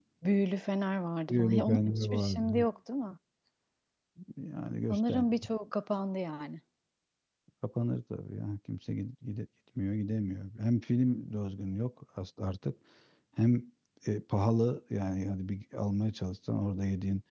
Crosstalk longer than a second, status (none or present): present